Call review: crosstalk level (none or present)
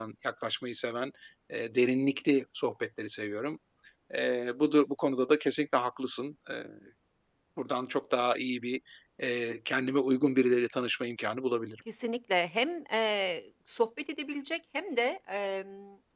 none